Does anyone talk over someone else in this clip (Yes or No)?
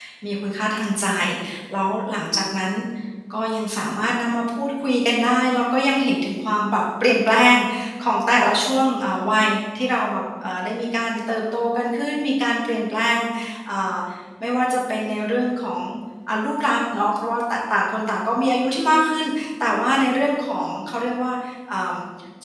No